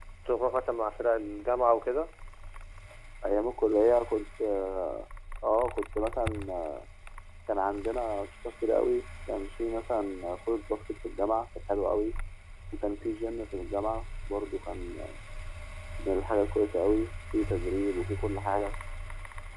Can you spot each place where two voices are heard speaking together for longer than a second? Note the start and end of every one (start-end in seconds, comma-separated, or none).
none